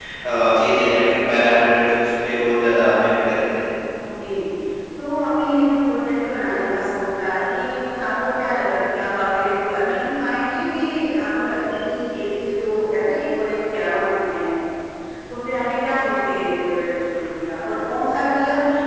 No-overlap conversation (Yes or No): Yes